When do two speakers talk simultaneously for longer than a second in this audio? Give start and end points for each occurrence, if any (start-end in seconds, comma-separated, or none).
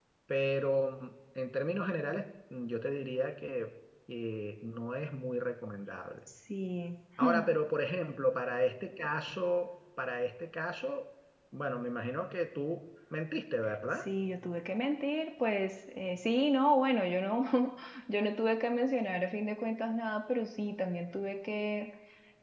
none